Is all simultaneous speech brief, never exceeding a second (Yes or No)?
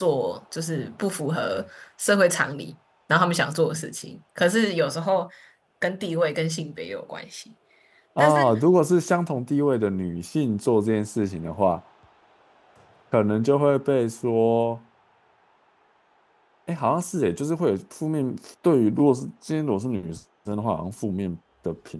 Yes